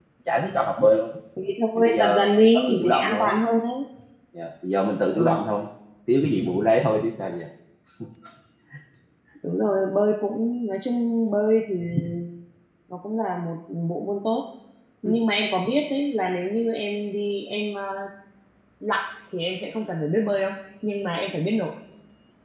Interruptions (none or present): present